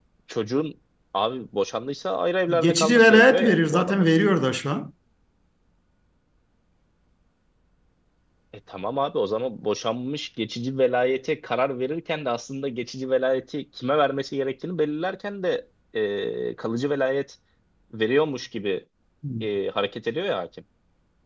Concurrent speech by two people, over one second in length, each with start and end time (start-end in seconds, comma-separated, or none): 2.6-4.1